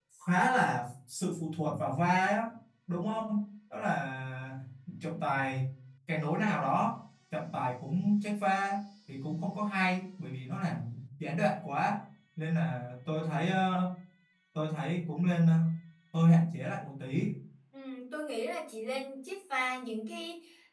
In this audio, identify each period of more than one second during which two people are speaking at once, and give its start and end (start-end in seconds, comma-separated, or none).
none